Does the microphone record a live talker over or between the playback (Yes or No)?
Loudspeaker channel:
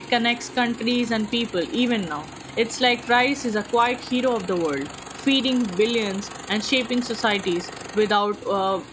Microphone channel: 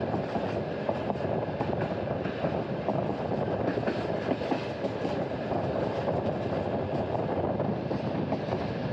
No